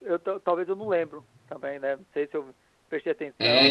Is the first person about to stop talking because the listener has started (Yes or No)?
Yes